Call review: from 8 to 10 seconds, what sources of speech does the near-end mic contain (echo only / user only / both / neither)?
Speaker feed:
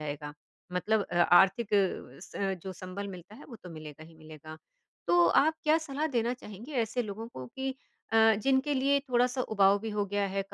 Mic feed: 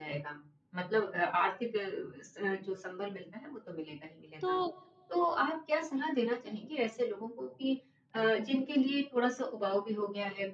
echo only